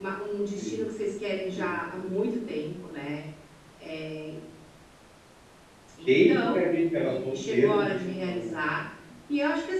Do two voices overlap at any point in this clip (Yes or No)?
Yes